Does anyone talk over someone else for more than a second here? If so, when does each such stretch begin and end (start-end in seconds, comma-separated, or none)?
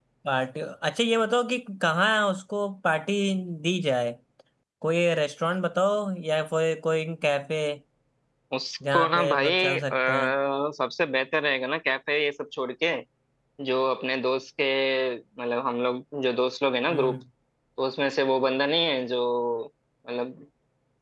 8.9-10.3